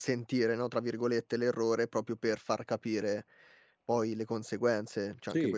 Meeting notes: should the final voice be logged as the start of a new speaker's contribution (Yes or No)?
No